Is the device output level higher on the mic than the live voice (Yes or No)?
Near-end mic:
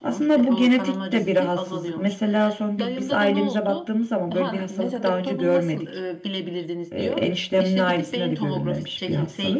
No